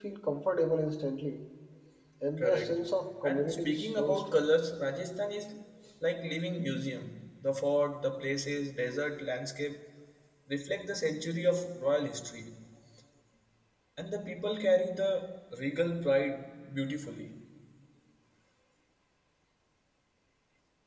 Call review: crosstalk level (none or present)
present